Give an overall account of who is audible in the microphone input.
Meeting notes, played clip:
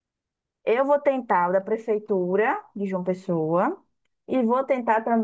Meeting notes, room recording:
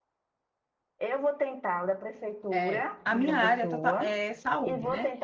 both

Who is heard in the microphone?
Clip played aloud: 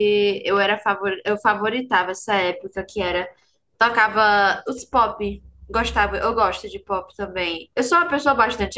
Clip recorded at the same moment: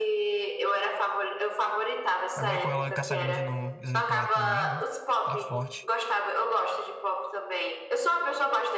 both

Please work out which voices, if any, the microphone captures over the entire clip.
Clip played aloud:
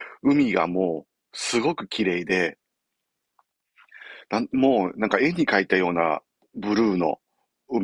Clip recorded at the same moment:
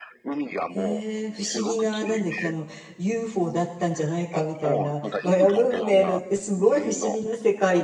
both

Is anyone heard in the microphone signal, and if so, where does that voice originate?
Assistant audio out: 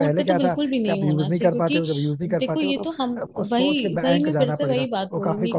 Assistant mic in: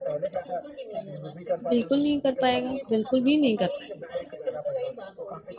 both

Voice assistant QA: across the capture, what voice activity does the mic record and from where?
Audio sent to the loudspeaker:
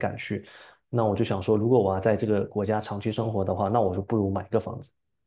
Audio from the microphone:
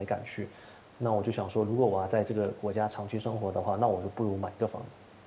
echo only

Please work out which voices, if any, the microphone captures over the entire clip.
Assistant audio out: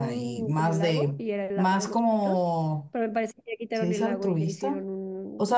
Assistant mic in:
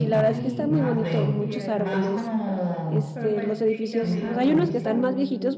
both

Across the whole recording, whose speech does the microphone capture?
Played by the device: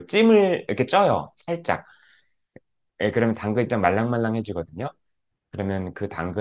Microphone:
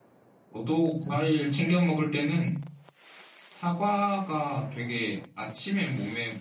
user only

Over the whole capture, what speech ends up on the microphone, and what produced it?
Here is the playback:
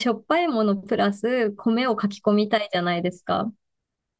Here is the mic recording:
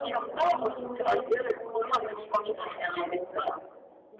both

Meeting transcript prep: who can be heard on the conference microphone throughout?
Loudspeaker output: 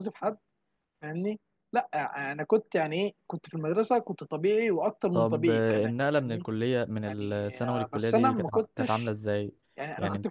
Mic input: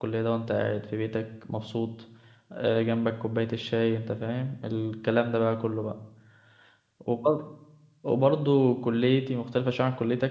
user only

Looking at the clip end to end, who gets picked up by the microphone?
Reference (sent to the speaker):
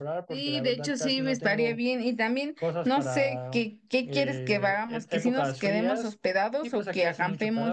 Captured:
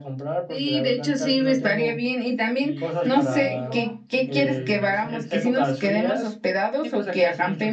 both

